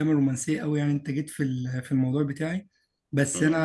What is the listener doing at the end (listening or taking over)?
listening